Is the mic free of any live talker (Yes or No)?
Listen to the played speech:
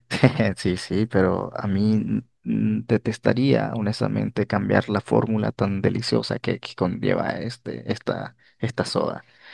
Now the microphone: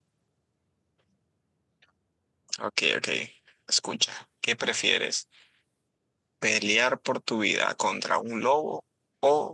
No